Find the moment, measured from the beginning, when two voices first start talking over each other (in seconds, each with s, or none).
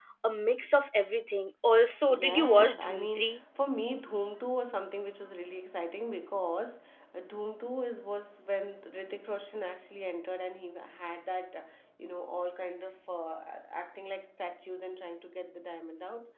2.1 s